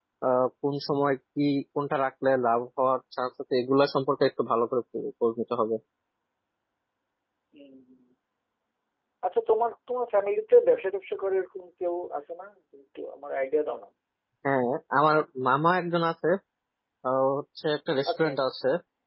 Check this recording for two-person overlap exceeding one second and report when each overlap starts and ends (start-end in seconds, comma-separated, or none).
none